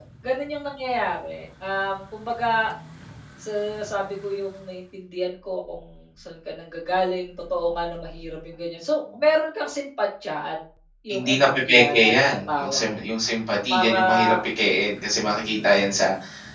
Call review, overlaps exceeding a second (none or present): present